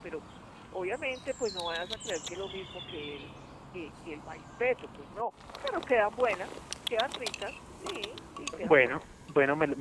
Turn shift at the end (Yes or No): Yes